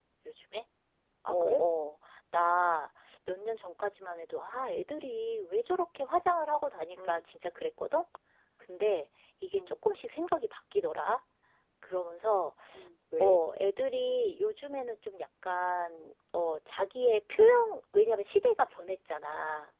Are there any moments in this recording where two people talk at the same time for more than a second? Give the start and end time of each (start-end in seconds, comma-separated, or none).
none